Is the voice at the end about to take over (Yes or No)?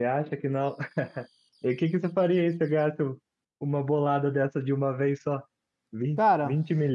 No